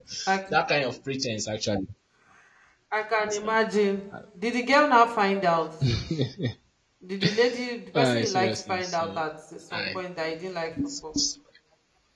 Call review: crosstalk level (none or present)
present